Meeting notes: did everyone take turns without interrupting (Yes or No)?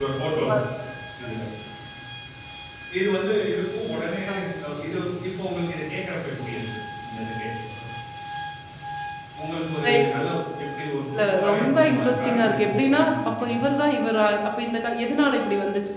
No